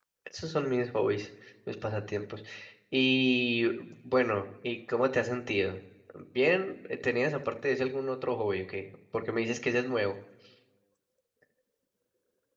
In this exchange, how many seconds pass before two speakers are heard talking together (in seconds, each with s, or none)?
none